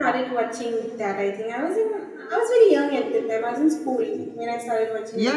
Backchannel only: No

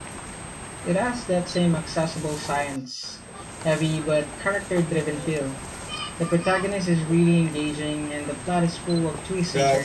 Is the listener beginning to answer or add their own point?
Yes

